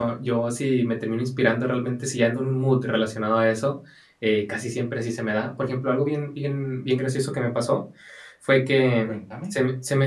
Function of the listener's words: listening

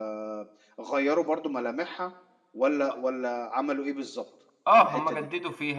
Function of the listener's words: taking over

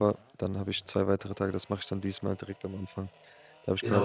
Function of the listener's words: taking over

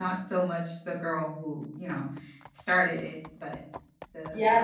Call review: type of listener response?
taking over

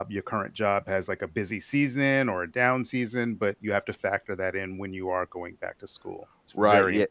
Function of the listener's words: taking over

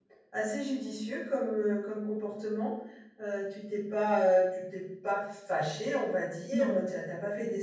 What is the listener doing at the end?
listening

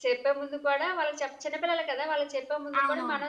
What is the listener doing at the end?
listening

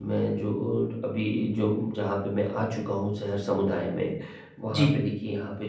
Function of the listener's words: listening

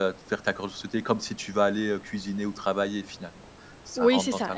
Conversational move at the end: taking over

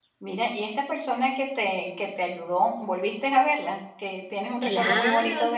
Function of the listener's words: taking over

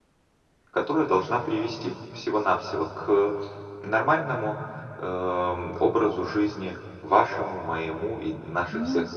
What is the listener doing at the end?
listening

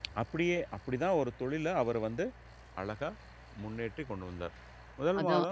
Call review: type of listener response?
listening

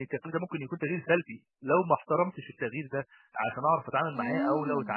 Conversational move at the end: listening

